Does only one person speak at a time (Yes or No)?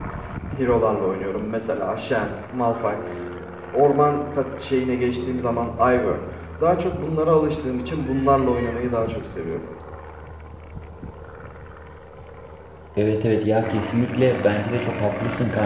Yes